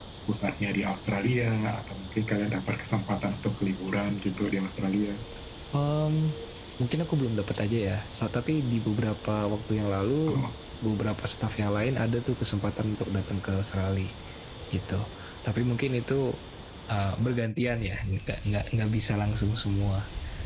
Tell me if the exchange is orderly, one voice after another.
Yes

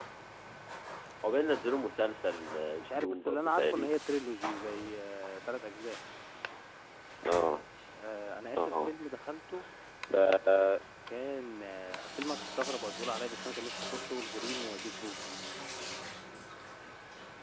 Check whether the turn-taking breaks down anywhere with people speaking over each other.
Yes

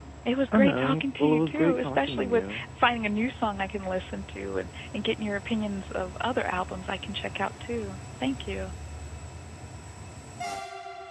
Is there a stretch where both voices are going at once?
Yes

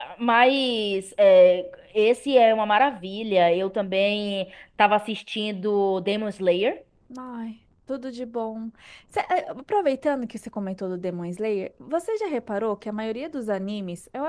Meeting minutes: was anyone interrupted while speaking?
No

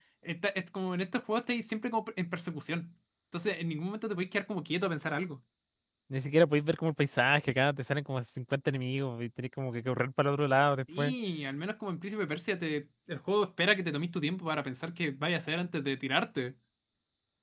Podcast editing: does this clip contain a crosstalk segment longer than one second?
No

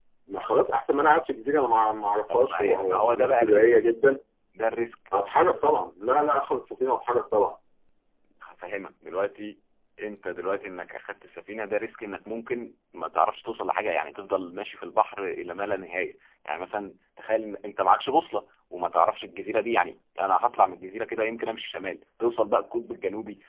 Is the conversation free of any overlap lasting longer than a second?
No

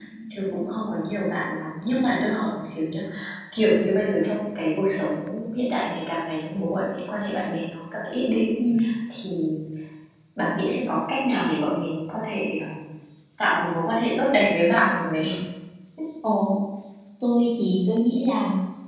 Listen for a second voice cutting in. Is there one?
No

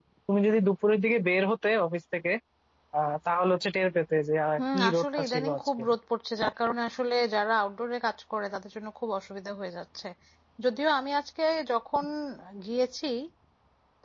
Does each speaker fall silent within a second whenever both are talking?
No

